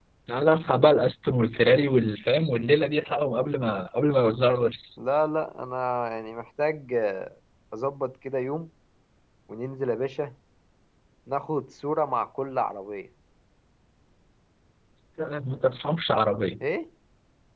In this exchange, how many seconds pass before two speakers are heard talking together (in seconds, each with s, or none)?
none